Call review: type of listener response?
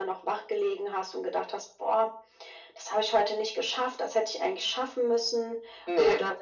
listening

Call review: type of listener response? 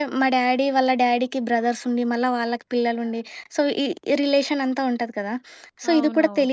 listening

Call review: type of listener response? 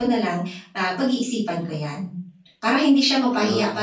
listening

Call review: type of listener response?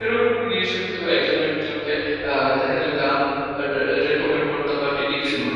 taking over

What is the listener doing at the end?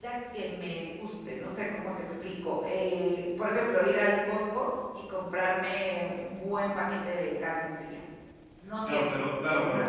taking over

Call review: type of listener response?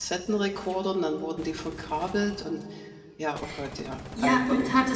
taking over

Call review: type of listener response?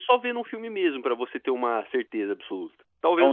taking over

